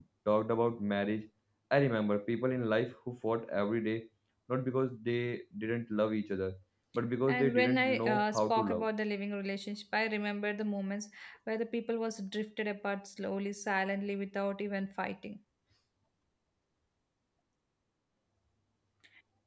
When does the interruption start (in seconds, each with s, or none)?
7.3 s